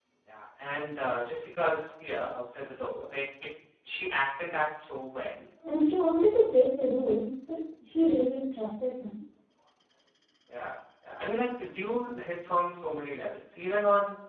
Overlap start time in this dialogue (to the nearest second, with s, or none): none